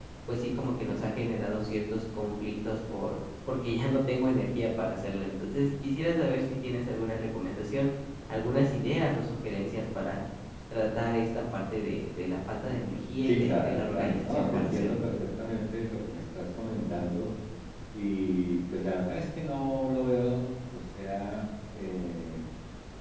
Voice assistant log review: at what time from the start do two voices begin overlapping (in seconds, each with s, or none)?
13.2 s